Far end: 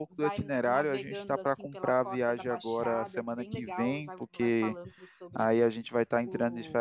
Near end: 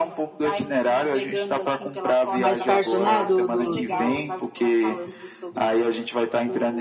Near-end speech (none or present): present